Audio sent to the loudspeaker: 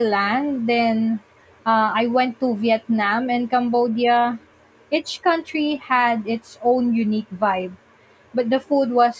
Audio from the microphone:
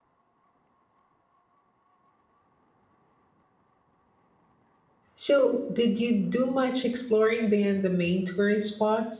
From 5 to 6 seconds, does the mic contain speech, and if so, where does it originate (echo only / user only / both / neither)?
user only